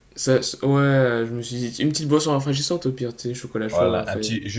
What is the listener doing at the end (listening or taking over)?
taking over